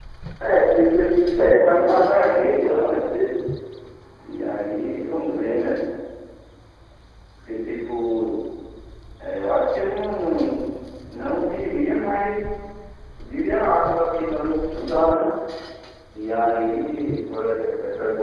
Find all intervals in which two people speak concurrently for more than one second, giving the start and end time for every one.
1.3-3.0

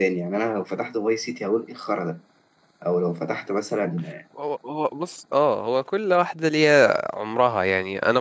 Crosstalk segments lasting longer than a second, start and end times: none

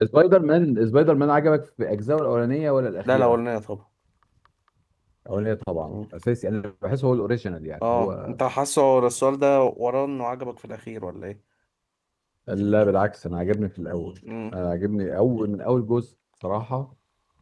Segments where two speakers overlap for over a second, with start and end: none

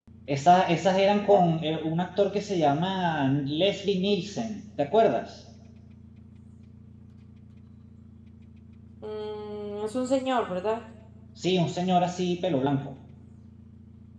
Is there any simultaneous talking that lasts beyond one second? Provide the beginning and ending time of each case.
none

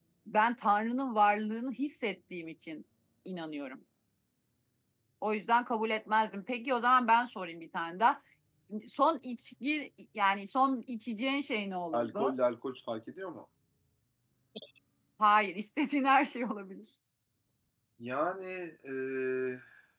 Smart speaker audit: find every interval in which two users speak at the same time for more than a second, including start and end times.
none

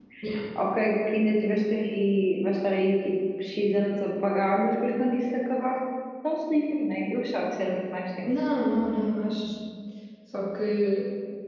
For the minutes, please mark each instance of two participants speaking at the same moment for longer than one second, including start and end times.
none

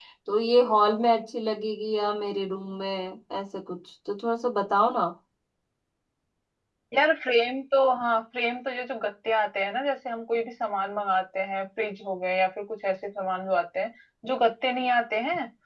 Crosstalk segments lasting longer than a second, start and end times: none

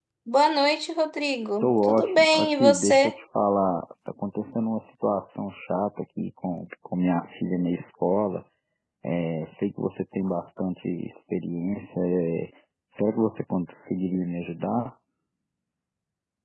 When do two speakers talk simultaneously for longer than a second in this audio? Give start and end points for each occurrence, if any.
1.6-3.1

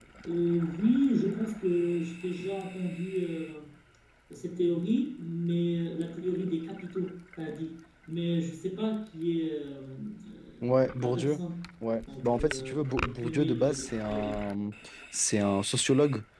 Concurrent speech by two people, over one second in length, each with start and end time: 12.2-14.4

